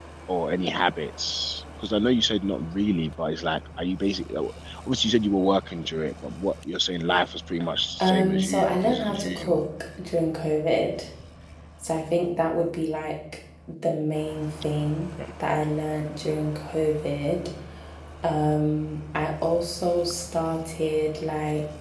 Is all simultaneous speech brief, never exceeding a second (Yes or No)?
No